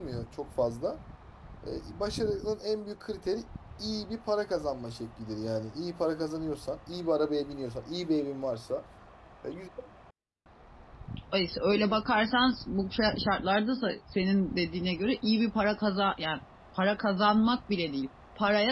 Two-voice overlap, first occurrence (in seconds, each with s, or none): none